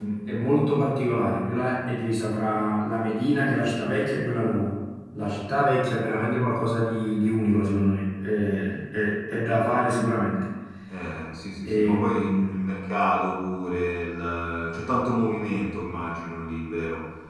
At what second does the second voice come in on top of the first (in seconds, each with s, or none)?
11.7 s